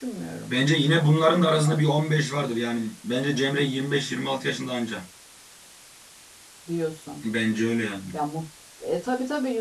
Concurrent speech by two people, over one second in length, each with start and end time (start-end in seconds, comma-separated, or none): none